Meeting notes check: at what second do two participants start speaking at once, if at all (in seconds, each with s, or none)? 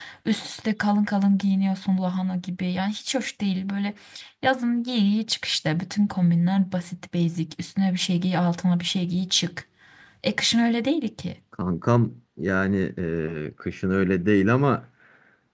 none